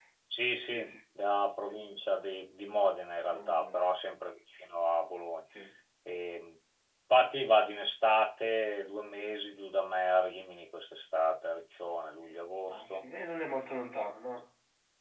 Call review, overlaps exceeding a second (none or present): none